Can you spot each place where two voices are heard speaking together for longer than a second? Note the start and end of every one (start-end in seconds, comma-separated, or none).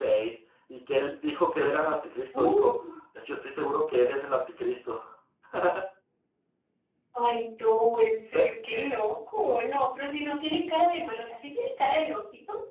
none